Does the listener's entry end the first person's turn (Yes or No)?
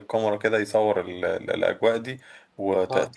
No